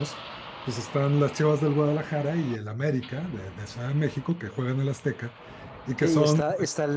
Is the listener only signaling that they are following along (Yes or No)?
No